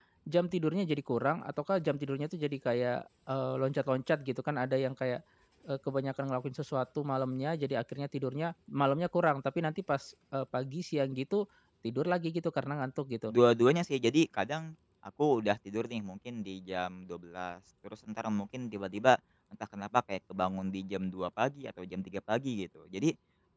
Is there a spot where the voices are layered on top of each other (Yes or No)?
No